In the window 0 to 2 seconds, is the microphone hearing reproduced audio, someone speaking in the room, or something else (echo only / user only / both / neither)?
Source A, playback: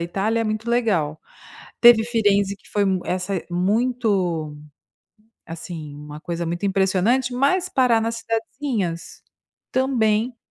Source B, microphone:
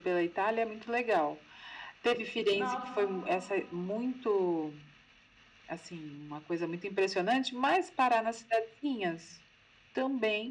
echo only